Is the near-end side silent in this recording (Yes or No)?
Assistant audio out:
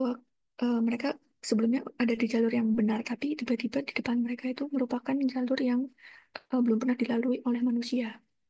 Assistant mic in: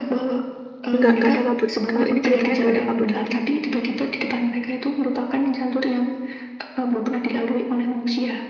No